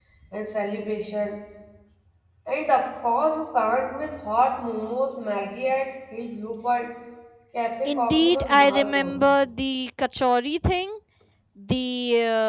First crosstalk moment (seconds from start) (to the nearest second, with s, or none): 8 s